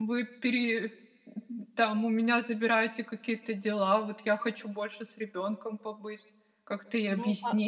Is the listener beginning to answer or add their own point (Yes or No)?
Yes